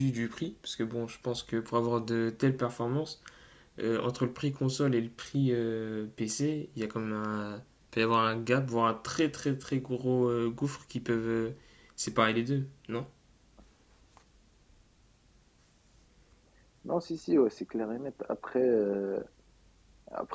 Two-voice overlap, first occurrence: none

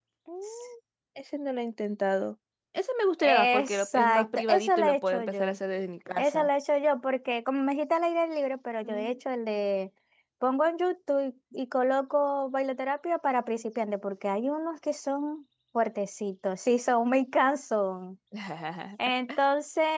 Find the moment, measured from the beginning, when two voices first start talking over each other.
3.2 s

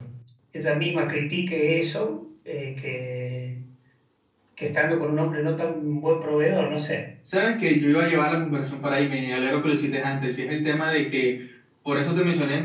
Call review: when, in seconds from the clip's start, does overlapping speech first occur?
none

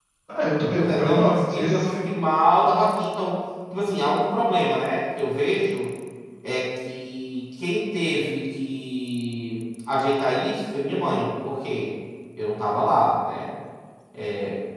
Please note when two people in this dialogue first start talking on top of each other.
0.8 s

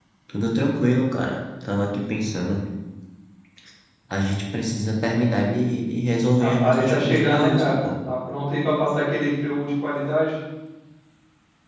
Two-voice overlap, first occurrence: 6.4 s

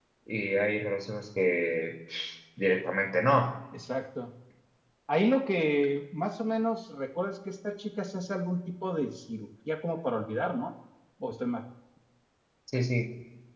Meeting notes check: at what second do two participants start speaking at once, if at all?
none

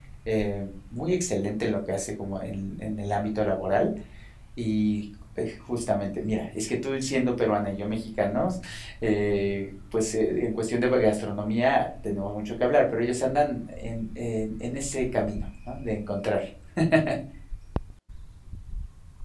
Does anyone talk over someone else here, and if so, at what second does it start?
none

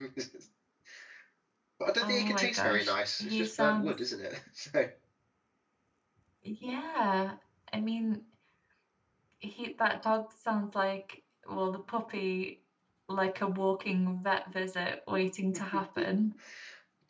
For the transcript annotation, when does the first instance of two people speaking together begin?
2.0 s

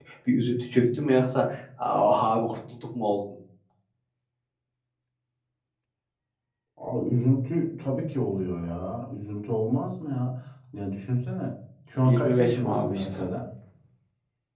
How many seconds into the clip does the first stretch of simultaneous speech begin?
12.0 s

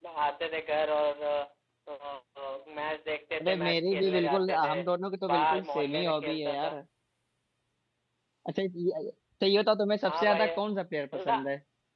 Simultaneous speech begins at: 3.4 s

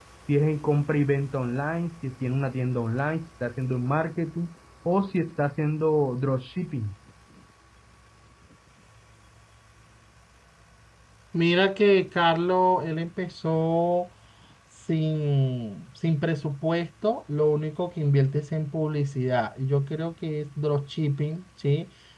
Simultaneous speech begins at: none

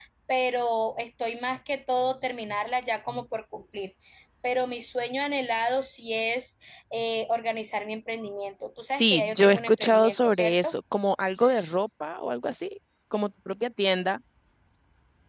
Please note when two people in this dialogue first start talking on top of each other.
9.0 s

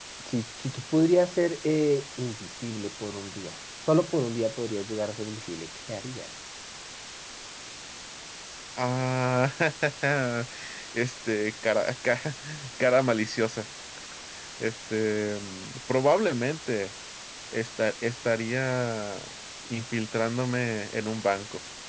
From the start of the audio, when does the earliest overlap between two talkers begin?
none

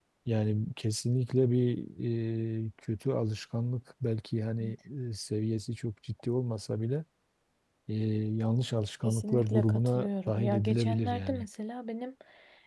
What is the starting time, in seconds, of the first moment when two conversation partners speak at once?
9.0 s

